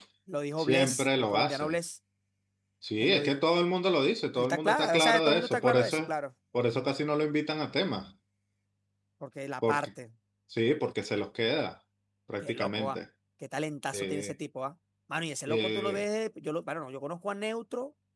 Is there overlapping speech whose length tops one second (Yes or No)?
Yes